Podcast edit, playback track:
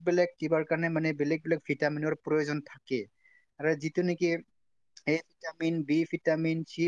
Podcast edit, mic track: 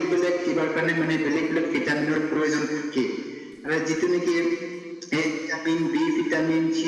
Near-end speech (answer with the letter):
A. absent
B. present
A